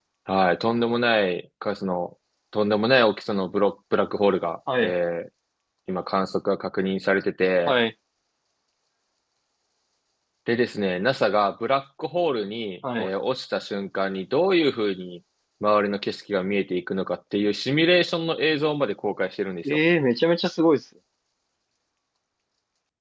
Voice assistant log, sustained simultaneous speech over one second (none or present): none